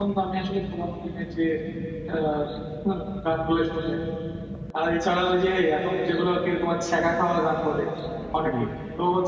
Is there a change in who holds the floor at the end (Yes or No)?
No